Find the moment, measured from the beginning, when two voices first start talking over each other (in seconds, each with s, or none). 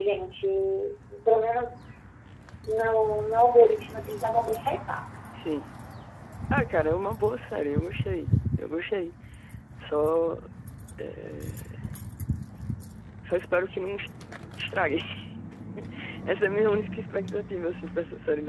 none